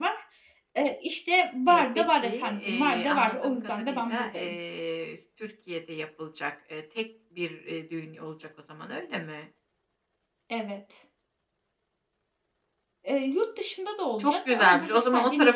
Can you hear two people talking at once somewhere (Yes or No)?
Yes